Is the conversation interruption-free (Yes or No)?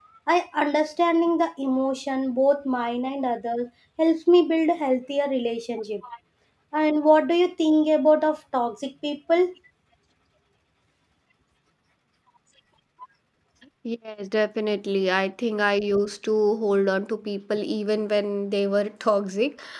Yes